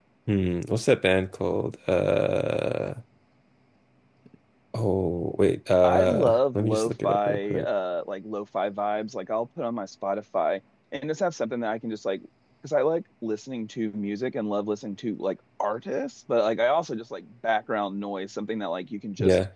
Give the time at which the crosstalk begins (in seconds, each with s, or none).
5.8 s